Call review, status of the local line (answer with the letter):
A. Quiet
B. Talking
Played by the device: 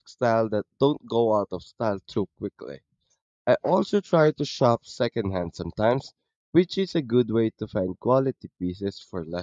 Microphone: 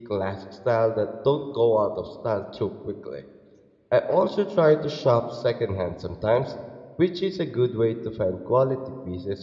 A